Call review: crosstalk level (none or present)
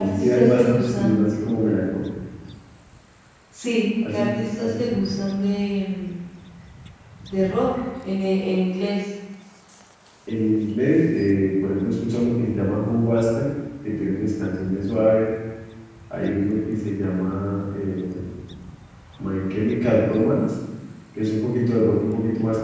present